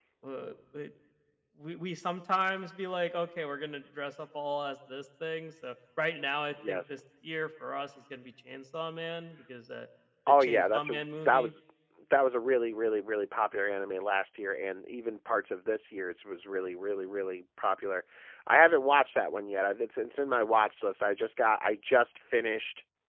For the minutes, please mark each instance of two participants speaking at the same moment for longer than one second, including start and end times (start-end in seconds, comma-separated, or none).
10.3-11.5